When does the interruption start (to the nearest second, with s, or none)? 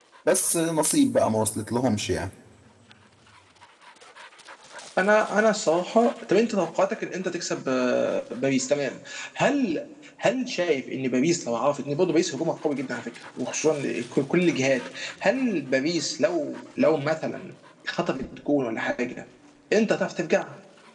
none